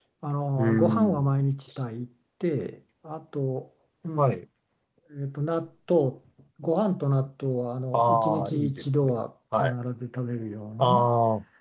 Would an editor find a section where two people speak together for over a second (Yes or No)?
Yes